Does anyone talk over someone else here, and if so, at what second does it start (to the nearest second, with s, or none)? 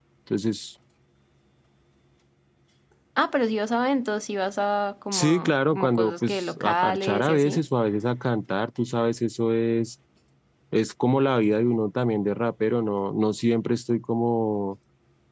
5 s